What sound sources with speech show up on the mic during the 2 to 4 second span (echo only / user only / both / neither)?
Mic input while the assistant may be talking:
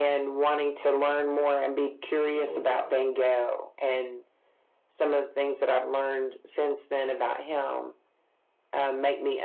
both